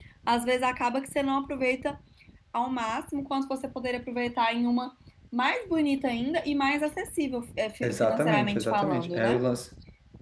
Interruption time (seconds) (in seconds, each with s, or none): 7.8 s